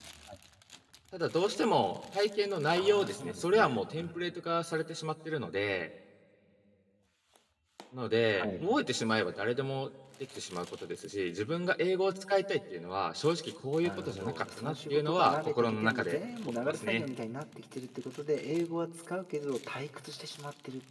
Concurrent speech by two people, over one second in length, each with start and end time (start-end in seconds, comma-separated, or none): 2.7-4.2, 13.8-17.0